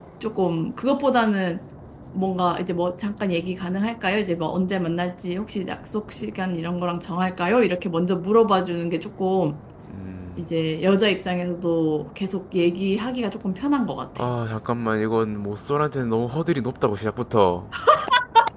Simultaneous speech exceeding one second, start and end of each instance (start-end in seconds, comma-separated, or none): none